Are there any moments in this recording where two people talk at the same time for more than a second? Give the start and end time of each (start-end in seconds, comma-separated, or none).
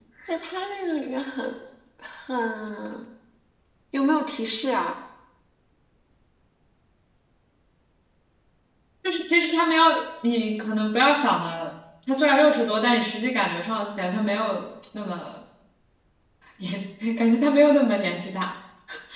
none